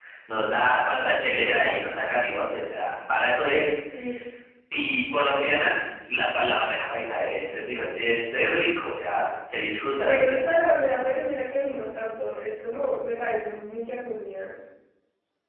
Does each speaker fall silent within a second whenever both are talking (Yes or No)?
Yes